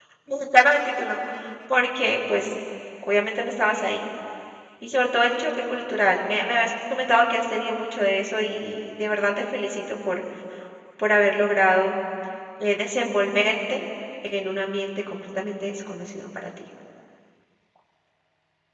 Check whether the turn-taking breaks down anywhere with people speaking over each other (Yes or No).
No